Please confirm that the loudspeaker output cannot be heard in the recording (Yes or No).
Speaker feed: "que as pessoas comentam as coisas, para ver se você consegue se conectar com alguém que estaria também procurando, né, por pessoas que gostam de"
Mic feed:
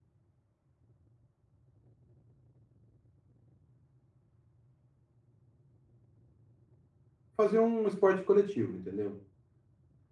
Yes